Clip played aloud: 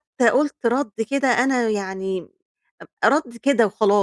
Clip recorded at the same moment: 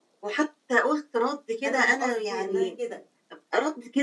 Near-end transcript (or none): أنا مش قصدي إنها كده،